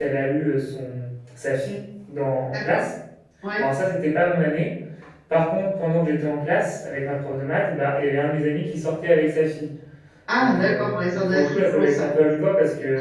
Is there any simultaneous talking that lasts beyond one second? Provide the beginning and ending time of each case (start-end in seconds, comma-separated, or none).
10.4-12.1